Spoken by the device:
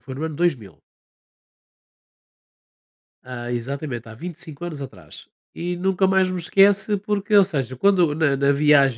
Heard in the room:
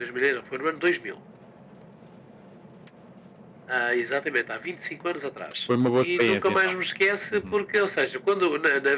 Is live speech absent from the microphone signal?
No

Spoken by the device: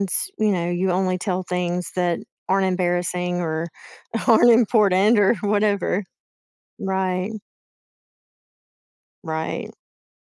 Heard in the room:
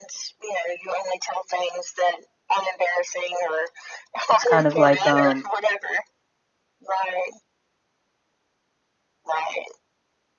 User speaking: Yes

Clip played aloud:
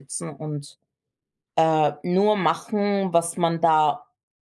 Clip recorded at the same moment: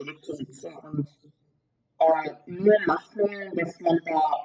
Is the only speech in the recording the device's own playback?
Yes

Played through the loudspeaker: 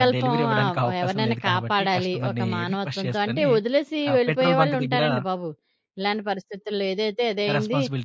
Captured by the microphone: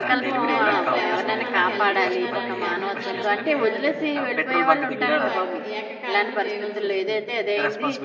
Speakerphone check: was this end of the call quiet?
No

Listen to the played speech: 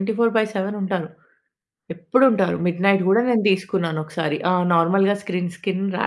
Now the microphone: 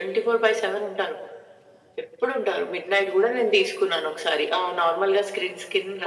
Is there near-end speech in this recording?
No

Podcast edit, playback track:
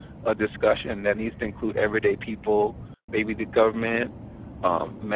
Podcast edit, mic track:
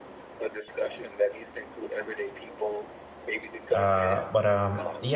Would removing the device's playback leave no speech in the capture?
No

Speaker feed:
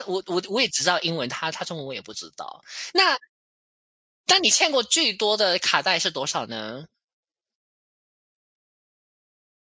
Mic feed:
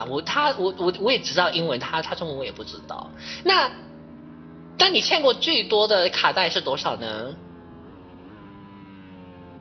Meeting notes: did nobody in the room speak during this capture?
Yes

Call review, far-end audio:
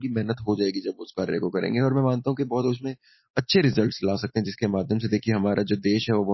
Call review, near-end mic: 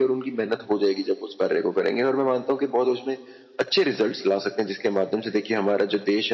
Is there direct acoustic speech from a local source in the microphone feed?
No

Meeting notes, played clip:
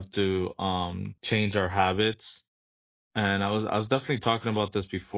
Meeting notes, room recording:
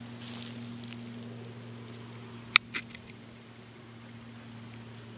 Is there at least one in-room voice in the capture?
No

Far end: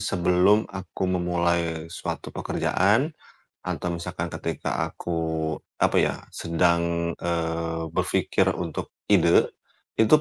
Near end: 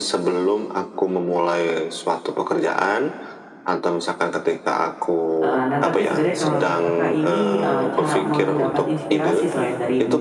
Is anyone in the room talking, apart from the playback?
Yes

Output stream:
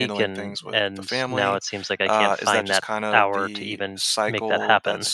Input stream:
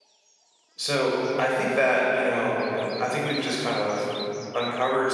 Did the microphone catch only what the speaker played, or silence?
No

